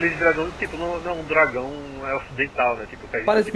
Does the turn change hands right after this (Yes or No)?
Yes